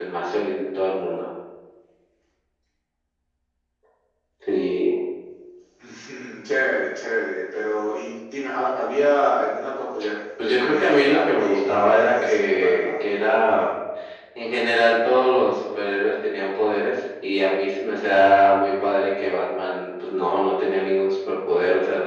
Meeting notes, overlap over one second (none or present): present